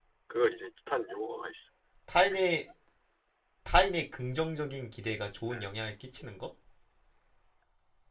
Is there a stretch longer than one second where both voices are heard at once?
No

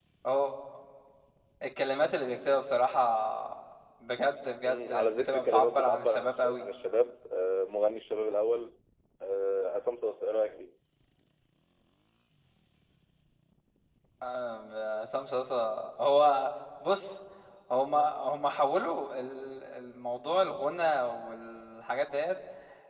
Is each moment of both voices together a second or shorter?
No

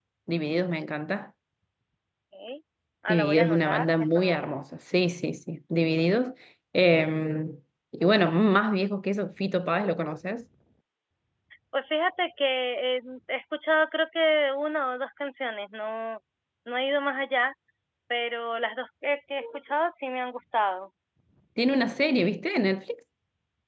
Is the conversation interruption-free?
No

